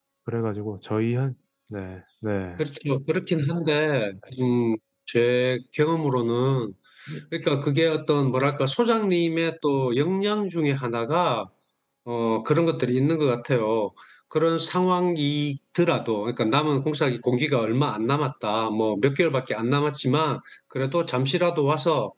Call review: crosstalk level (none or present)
none